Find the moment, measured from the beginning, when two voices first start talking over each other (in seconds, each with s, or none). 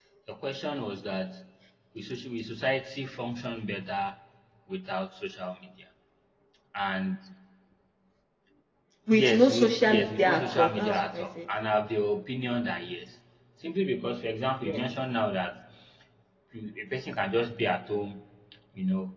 9.1 s